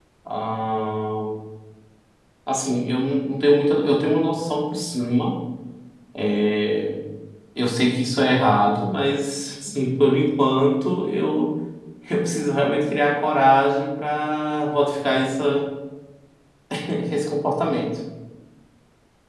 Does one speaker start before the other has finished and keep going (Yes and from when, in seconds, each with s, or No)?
No